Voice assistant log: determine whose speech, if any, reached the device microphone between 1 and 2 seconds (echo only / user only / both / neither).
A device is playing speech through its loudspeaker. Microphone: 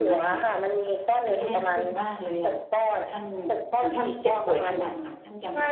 both